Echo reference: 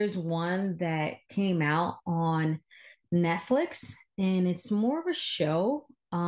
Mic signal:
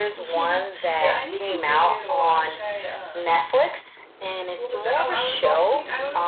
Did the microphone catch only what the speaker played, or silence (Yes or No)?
No